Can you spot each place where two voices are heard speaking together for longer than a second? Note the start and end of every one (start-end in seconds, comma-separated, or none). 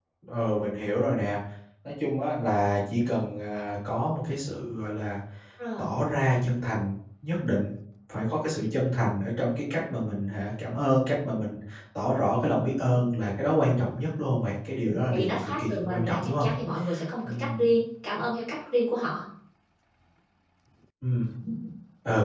14.8-16.5